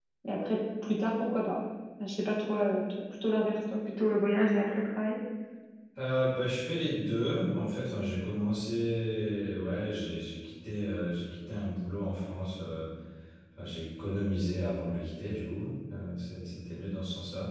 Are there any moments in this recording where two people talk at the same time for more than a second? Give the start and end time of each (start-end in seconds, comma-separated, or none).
none